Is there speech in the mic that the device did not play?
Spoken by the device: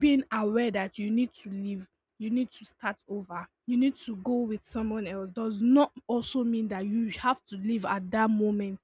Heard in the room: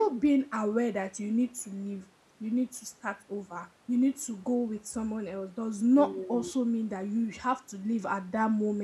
Yes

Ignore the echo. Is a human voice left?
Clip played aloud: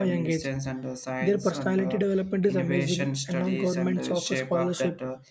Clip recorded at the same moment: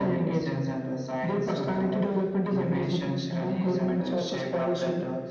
No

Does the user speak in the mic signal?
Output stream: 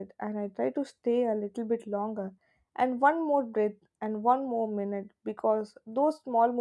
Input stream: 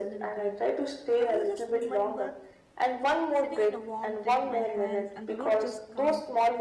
Yes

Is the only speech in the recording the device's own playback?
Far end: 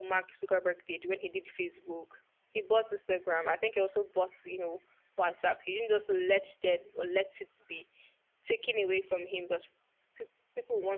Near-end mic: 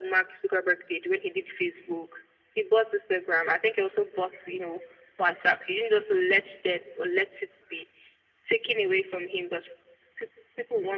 Yes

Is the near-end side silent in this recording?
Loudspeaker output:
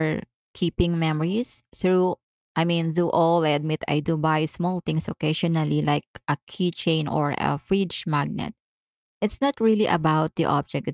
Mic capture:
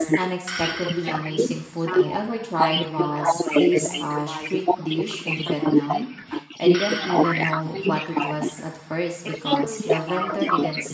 No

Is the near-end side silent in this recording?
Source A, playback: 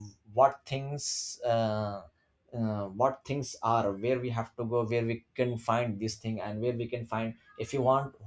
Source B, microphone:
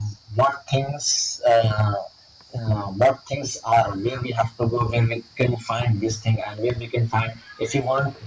Yes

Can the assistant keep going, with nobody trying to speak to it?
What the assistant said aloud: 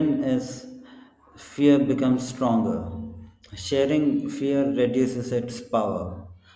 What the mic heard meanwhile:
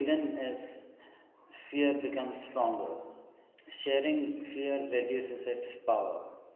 Yes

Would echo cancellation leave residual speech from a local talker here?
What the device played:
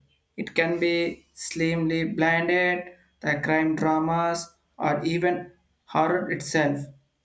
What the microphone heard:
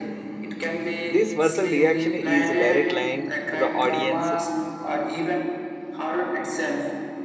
Yes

